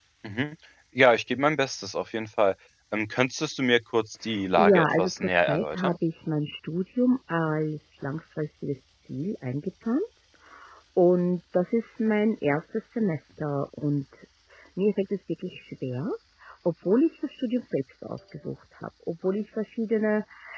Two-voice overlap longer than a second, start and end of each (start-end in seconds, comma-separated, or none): 4.6-6.0